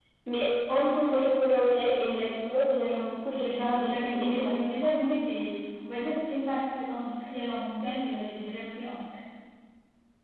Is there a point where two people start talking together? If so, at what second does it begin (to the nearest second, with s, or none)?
3 s